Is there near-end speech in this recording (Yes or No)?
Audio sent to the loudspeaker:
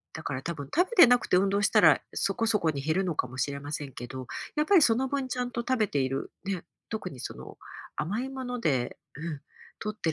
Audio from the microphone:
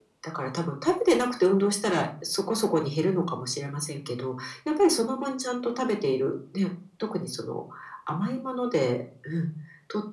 No